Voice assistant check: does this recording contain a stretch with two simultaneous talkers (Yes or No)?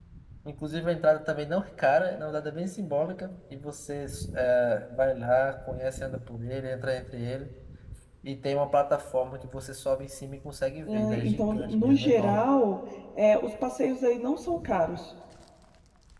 Yes